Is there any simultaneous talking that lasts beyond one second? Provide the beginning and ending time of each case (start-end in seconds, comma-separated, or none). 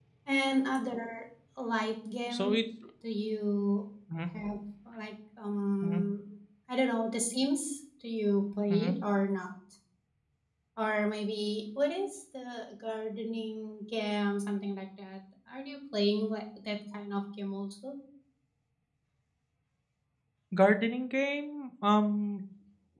none